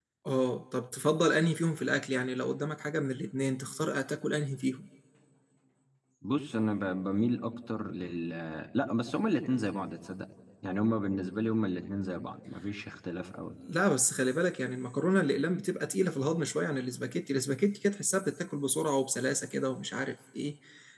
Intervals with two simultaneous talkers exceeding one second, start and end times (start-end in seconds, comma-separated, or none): none